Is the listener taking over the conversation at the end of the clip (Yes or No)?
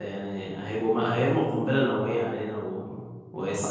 No